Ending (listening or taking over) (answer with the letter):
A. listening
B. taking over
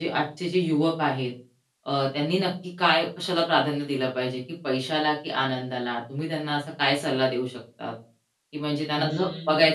A